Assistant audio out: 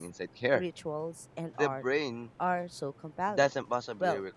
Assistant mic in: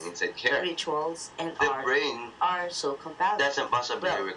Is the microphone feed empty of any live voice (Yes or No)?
Yes